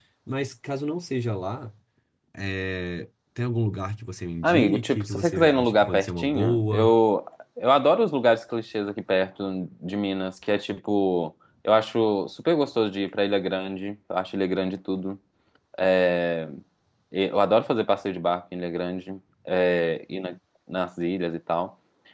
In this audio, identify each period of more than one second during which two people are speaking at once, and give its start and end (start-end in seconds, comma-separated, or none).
4.4-7.0